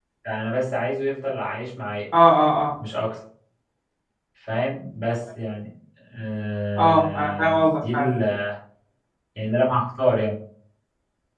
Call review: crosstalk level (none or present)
present